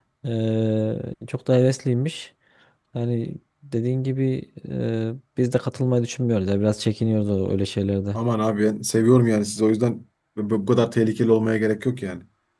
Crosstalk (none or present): none